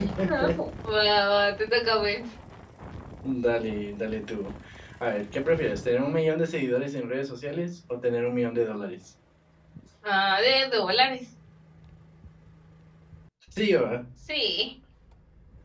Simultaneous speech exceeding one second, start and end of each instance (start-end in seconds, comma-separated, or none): none